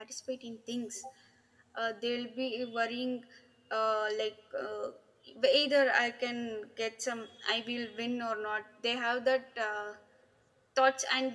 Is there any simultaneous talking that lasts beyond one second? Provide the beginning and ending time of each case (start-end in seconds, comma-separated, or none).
none